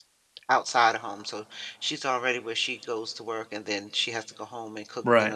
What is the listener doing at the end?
listening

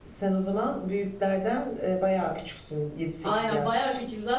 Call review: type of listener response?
taking over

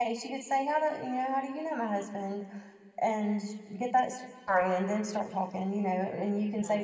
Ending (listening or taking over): listening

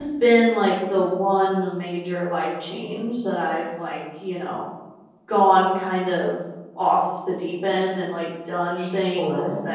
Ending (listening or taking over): listening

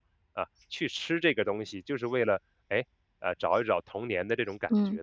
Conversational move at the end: taking over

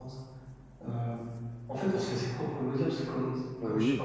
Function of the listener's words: listening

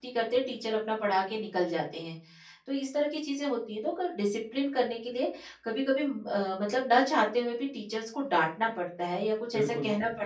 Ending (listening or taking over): taking over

